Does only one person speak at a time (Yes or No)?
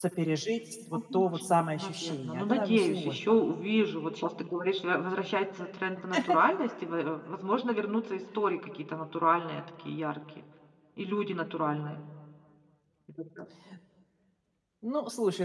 No